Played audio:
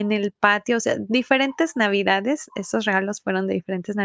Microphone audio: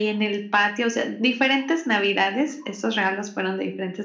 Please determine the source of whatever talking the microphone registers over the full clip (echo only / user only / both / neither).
echo only